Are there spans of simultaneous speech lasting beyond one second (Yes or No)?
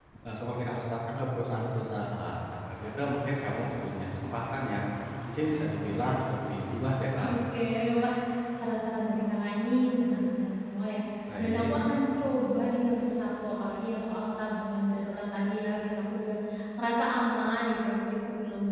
No